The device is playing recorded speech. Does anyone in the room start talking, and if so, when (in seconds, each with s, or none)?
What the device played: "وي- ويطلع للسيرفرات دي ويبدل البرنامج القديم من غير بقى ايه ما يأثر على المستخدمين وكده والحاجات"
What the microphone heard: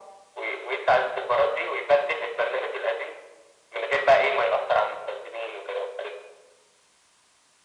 none